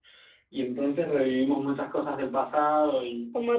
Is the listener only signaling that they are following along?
No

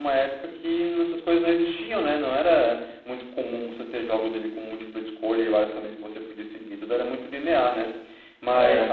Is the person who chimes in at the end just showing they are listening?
Yes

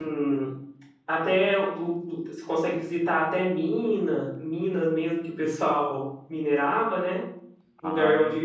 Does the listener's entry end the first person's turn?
No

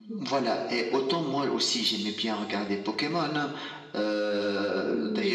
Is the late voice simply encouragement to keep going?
Yes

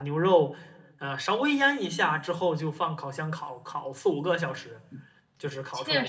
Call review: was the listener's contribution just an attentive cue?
No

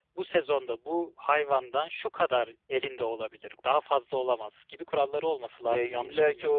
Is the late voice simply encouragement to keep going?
No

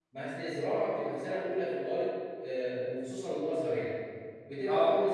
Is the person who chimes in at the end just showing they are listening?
Yes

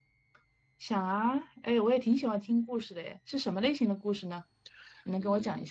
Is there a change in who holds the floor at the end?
Yes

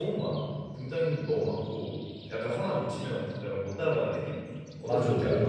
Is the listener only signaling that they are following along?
No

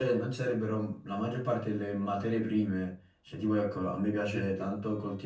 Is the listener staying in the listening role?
Yes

